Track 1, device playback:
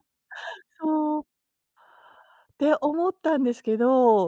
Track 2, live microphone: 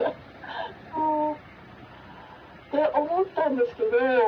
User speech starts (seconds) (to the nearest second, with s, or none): none